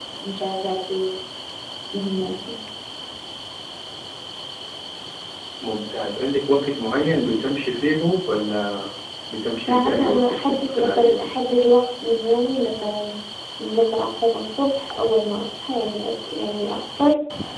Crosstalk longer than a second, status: present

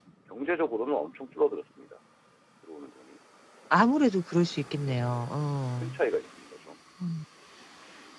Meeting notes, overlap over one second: none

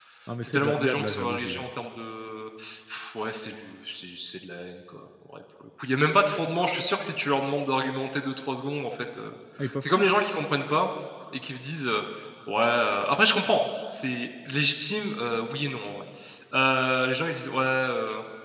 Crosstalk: present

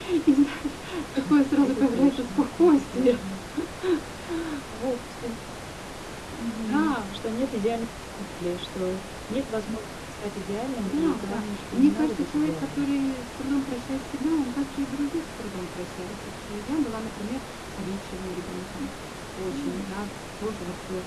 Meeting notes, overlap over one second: present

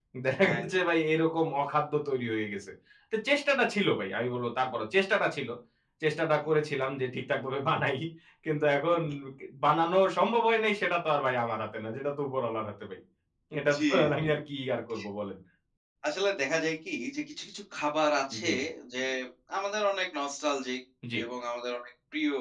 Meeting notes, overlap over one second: none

